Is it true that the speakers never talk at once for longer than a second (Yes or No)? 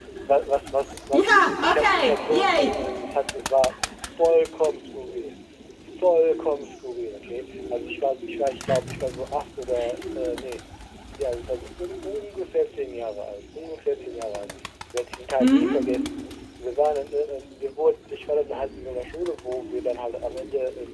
No